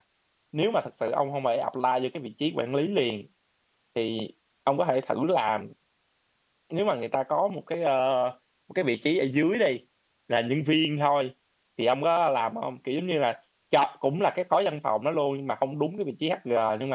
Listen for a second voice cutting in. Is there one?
No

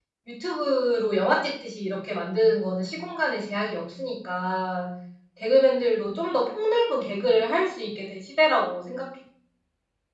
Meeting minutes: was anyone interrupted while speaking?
No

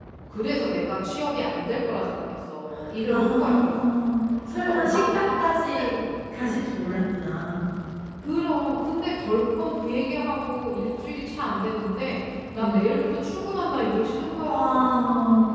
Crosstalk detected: Yes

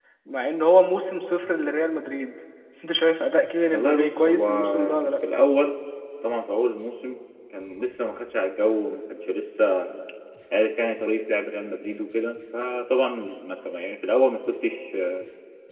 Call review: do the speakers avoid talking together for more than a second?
No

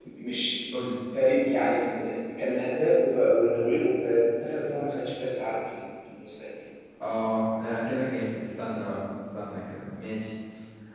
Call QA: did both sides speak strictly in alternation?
Yes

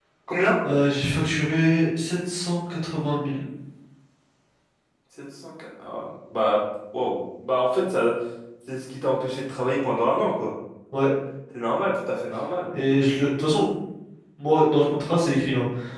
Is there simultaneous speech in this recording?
No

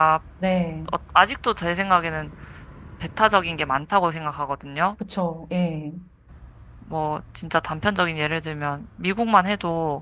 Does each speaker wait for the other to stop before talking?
Yes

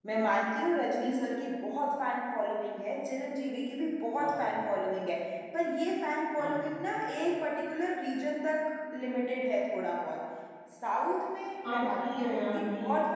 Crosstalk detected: Yes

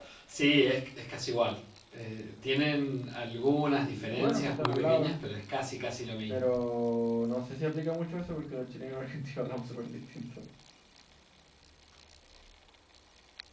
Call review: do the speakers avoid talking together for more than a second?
No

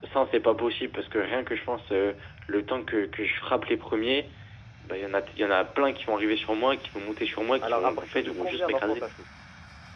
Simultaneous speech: Yes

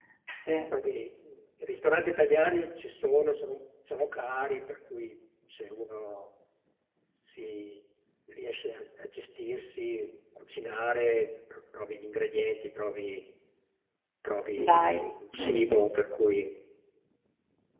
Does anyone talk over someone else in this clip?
Yes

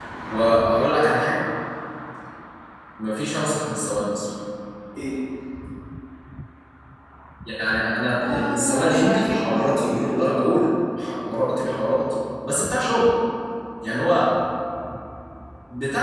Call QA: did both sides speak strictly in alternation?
No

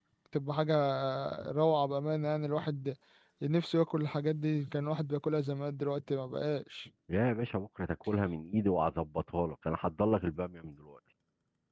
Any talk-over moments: No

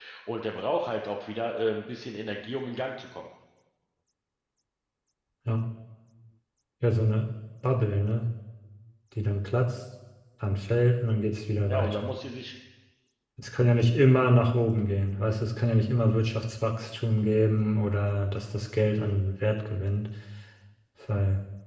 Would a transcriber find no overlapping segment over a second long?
Yes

